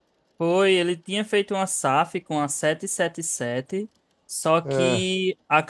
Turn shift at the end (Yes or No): No